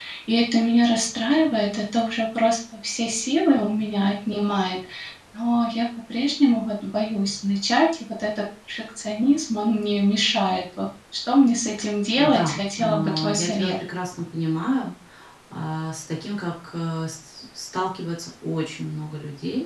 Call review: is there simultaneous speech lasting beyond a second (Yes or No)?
Yes